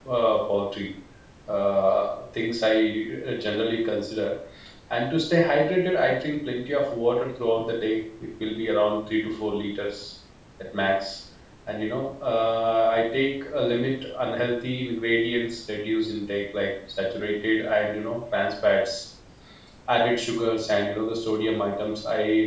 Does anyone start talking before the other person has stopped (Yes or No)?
No